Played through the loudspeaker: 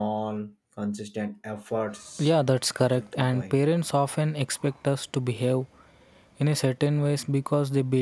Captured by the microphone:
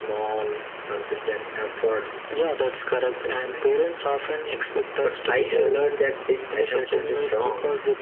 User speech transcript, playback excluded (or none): but i have learned that this assumption is wrong